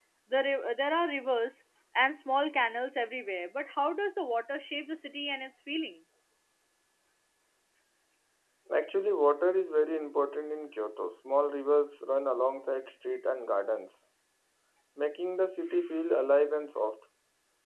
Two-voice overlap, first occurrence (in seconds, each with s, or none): none